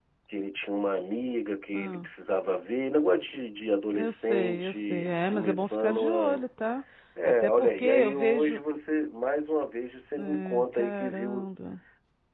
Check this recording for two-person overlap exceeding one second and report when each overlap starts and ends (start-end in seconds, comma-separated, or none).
3.9-6.4, 7.2-8.6, 10.2-11.5